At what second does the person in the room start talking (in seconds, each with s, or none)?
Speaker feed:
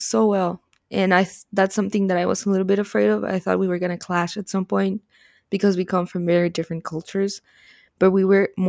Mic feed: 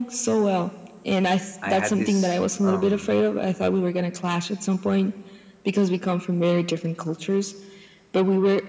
1.6 s